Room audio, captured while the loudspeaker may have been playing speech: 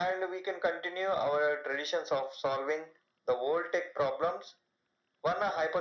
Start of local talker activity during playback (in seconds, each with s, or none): none